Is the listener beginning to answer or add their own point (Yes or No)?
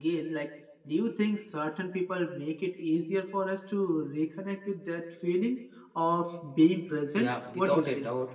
Yes